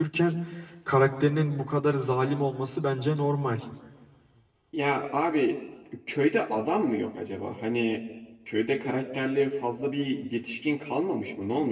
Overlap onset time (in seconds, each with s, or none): none